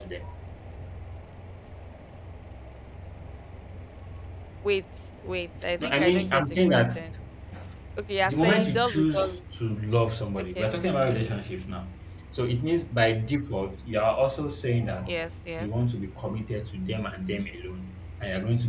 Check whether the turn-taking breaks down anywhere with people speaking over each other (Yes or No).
Yes